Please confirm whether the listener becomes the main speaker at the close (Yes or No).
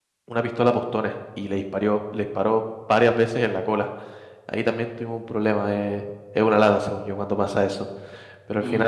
No